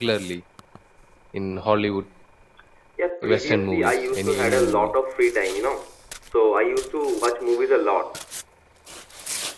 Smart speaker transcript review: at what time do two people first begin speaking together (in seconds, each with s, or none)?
3.2 s